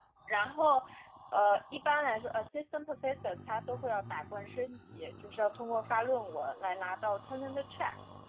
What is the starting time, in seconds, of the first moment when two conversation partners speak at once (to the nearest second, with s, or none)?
none